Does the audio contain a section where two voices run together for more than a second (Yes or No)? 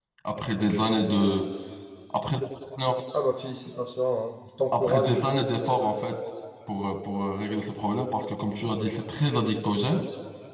No